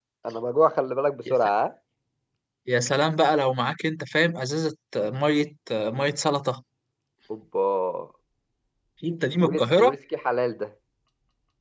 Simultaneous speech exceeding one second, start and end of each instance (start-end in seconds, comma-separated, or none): none